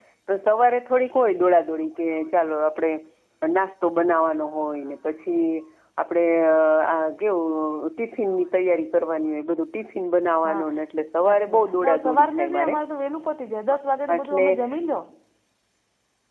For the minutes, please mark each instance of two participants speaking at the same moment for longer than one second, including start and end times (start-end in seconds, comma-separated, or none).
11.3-12.8